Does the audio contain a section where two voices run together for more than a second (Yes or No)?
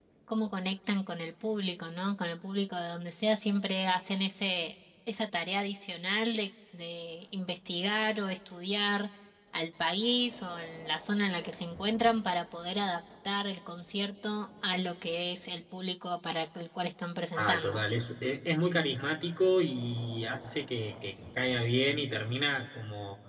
No